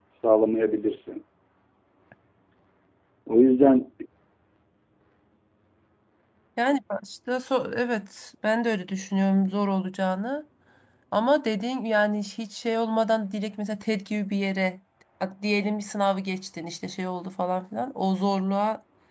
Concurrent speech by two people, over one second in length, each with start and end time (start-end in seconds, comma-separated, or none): none